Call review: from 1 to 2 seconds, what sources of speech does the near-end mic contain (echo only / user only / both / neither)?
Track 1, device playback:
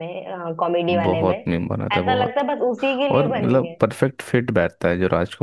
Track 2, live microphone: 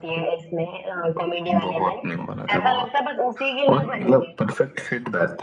echo only